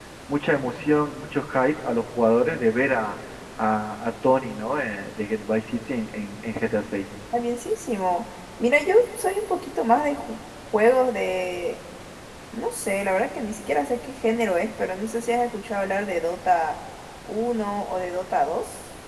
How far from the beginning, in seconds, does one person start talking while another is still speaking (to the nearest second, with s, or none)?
none